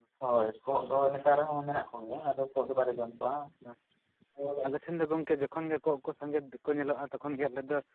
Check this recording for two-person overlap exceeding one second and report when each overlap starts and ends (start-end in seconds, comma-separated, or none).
none